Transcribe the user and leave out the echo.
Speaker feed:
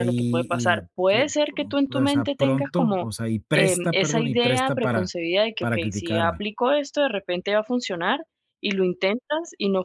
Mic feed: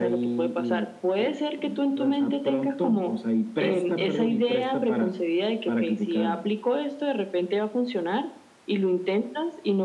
none

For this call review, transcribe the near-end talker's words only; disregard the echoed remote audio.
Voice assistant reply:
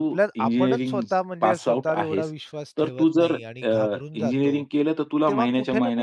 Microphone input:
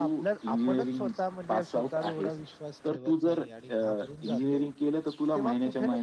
none

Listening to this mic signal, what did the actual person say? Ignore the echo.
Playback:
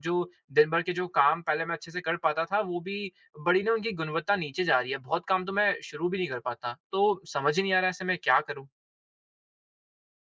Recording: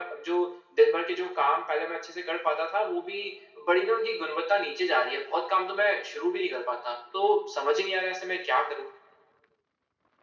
none

